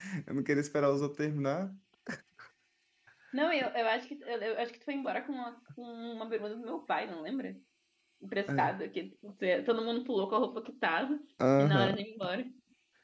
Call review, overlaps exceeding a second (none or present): none